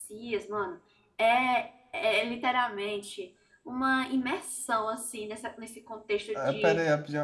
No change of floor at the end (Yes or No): No